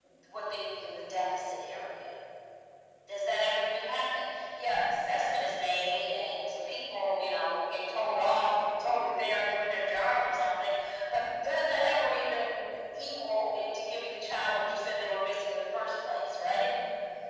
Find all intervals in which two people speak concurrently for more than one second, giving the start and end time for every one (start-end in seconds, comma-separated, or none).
none